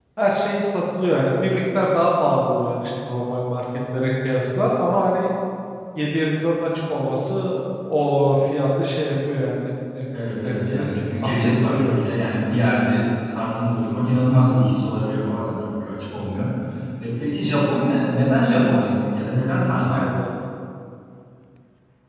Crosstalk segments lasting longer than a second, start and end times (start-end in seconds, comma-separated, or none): 10.4-11.9